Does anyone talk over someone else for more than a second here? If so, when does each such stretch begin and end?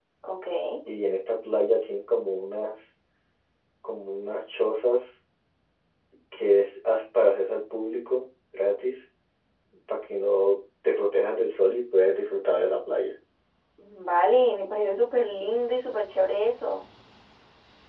none

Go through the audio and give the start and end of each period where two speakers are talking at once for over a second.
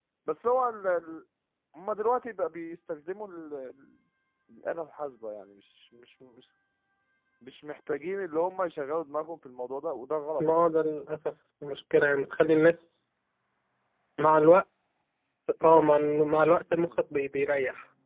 none

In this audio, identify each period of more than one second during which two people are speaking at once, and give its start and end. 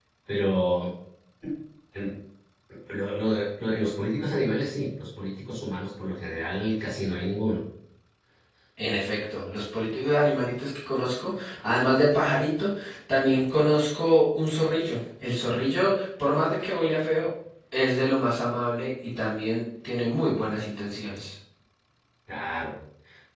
none

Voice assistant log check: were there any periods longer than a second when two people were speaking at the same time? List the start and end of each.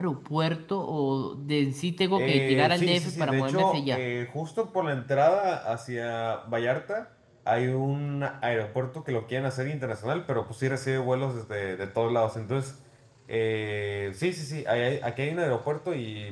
2.2-4.0

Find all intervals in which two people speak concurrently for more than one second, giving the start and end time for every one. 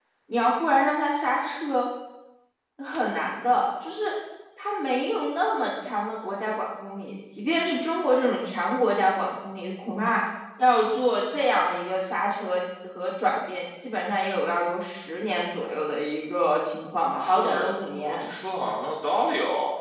16.9-18.2

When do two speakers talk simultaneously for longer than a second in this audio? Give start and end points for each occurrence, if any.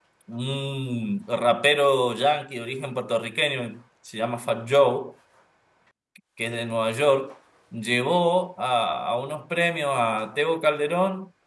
none

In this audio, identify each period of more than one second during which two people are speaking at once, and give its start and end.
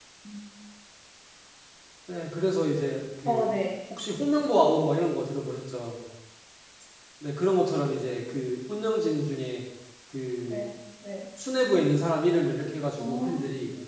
none

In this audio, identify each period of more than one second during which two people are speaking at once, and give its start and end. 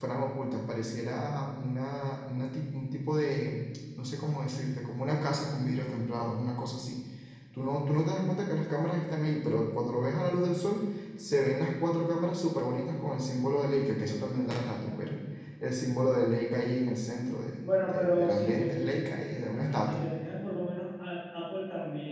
17.6-19.0

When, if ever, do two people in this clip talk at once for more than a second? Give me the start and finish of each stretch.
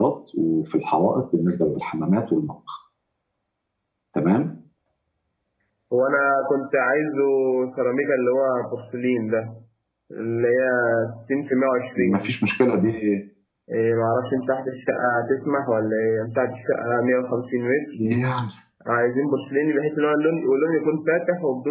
none

